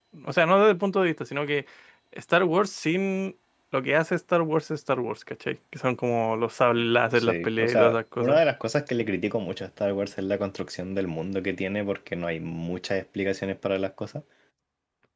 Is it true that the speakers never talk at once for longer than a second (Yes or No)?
No